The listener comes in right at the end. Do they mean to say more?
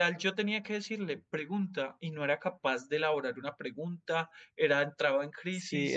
Yes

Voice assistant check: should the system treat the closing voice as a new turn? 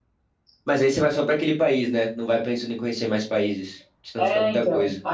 Yes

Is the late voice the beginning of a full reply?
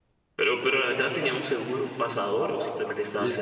Yes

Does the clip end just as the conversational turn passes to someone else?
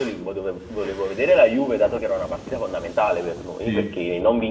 No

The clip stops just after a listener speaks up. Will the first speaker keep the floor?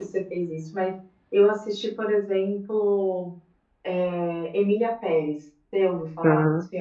No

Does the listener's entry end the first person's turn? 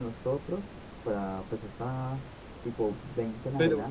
No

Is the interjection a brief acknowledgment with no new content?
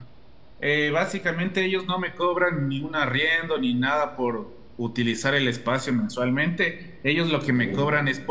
Yes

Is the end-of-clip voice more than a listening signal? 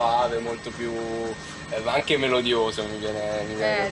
Yes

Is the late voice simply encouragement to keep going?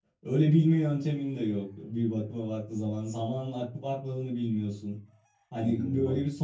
Yes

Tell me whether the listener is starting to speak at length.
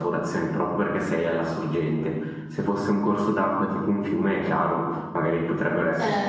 No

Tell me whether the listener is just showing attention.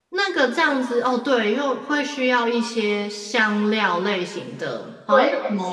No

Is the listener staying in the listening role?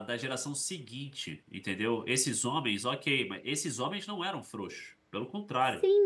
No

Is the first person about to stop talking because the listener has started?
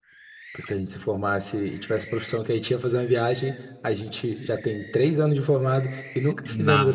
Yes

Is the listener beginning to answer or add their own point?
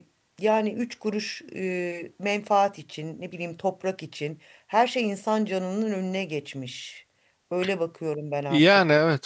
Yes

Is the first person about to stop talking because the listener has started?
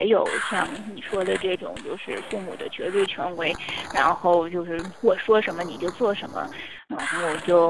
No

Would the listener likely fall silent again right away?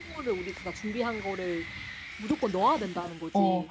No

